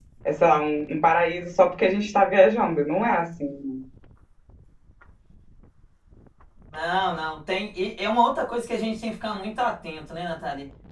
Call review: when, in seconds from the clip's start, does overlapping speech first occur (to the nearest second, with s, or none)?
none